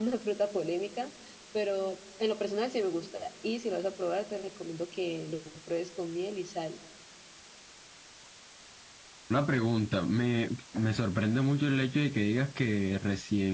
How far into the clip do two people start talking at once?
none

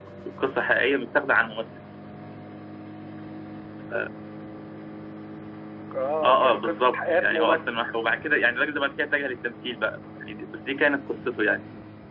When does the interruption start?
6 s

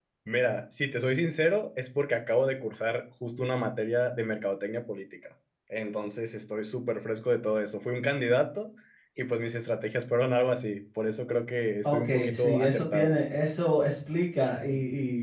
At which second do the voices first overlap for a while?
12 s

